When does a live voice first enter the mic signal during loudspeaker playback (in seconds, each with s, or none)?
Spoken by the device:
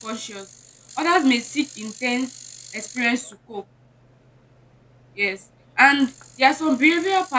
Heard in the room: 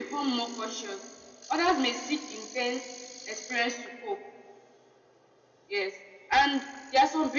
none